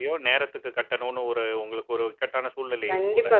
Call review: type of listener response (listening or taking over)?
taking over